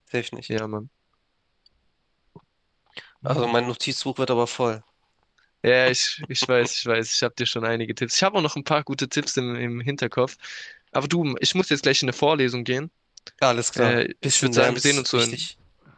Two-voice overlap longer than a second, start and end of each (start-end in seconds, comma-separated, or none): 13.8-15.4